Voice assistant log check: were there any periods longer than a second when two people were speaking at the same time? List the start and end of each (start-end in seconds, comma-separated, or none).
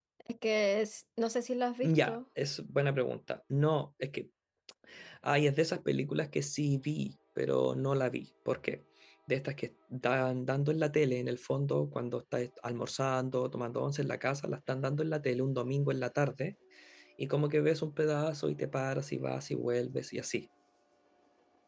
none